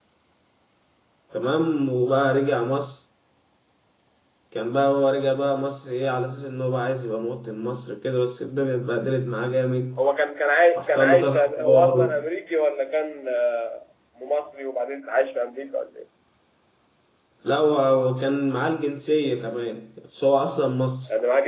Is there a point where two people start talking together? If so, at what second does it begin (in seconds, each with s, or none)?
10.8 s